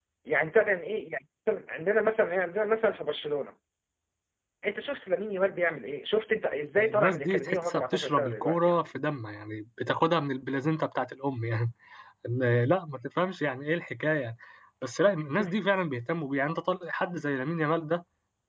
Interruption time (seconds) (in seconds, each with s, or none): 6.8 s